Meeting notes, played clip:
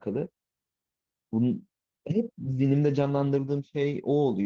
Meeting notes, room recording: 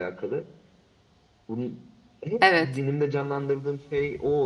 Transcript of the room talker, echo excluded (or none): evet.